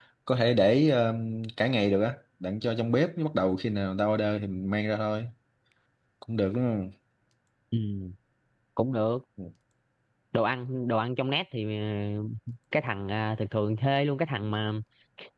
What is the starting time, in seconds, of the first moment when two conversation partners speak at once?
none

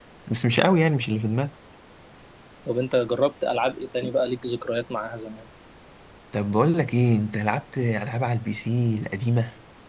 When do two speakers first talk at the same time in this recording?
none

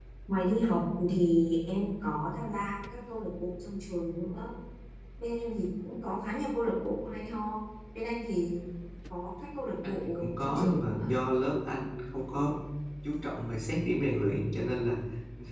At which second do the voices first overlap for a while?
9.8 s

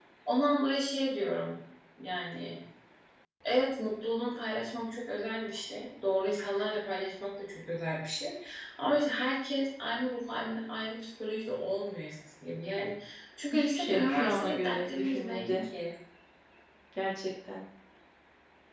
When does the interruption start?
13.5 s

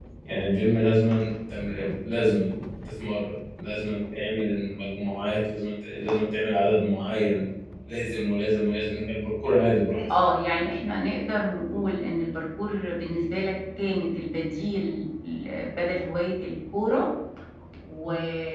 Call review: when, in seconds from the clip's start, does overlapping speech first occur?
none

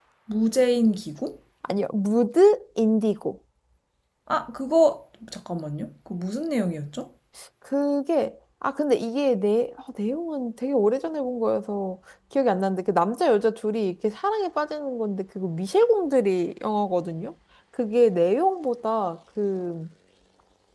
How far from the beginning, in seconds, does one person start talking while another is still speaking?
none

